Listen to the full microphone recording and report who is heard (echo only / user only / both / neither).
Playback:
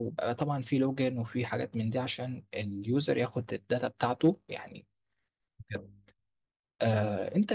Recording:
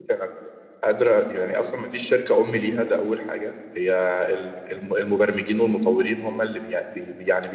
user only